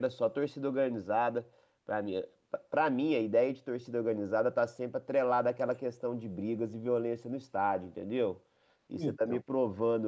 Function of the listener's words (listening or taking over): listening